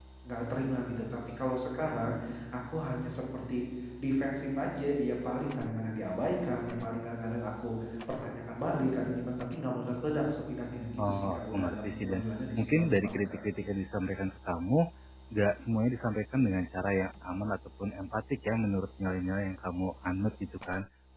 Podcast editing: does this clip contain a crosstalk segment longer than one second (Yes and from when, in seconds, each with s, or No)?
Yes, from 11.0 s